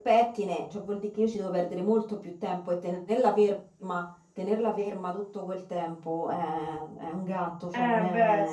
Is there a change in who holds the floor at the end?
Yes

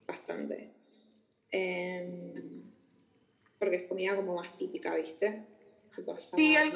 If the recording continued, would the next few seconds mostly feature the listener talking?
Yes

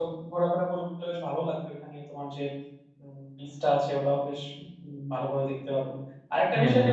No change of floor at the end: Yes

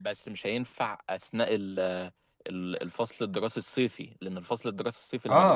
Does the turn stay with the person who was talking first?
No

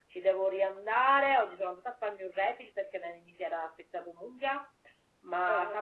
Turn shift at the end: No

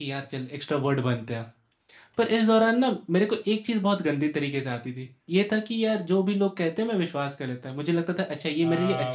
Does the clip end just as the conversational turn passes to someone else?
Yes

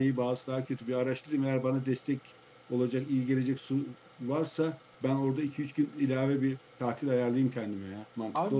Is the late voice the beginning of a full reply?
Yes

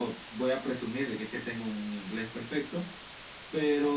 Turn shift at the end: Yes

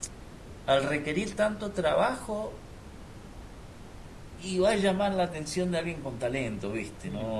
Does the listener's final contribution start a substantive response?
Yes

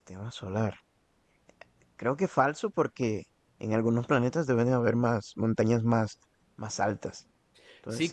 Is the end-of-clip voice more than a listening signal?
Yes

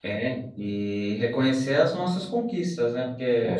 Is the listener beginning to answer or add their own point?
No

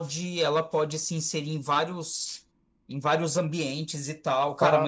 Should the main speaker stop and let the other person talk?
No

